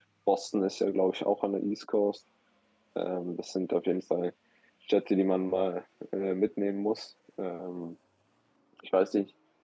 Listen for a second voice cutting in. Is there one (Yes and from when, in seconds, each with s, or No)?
No